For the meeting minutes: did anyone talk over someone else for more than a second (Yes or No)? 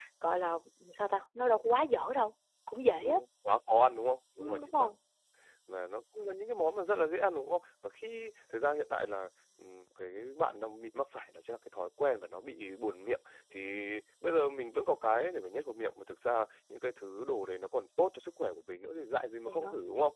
No